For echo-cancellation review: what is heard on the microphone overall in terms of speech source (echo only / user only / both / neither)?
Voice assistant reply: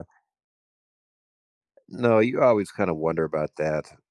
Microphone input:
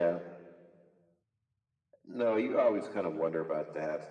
echo only